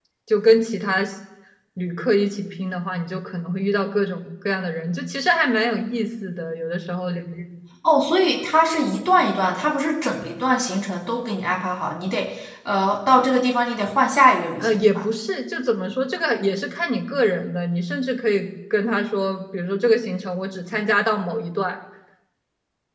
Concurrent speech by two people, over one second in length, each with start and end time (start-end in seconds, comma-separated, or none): none